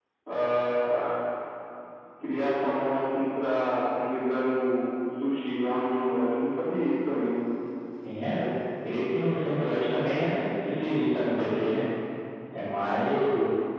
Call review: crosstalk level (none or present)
none